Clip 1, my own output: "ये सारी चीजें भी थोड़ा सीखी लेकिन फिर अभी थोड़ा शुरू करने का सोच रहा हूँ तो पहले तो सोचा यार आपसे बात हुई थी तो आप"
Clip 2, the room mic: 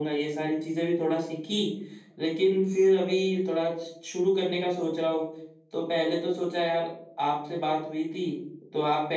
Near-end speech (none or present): none